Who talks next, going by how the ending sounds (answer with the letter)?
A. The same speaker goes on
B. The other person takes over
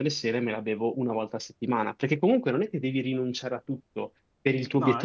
A